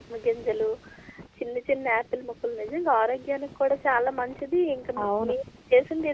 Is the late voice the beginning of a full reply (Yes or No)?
No